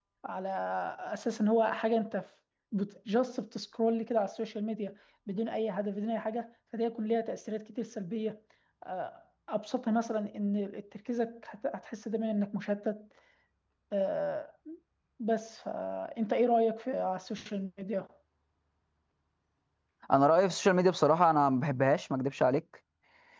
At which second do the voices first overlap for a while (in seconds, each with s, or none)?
none